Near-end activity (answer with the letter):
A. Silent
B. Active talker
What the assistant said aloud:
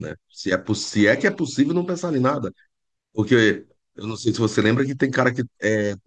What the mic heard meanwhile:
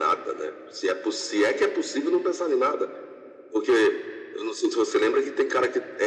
A